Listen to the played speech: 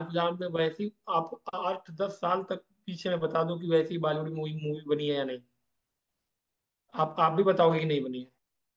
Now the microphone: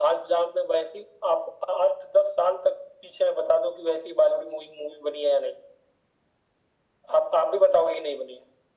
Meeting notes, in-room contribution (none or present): none